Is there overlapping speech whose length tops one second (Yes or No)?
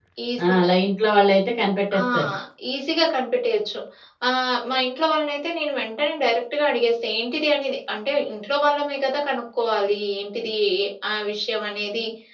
No